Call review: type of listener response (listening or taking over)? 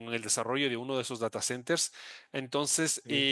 listening